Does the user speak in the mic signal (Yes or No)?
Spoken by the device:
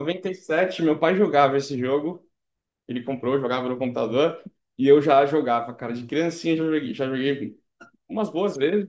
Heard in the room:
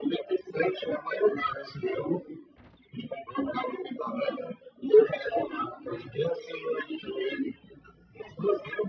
No